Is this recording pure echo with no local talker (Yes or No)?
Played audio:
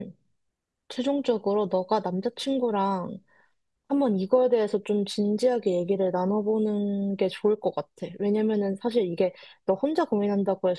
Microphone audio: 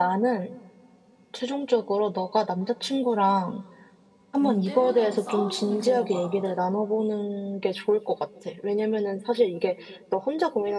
No